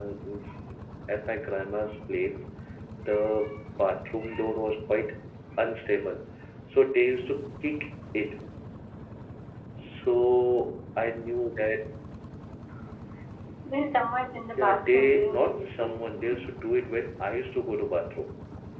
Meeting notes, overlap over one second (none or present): present